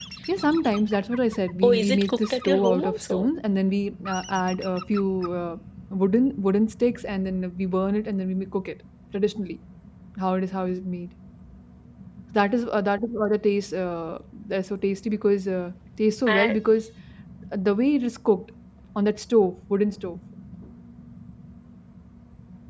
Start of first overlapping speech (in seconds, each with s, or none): 1.6 s